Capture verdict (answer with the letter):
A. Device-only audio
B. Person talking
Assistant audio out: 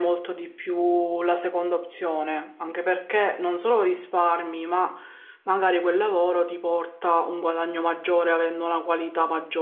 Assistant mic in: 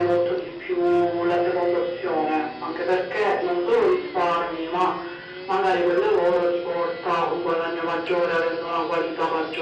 A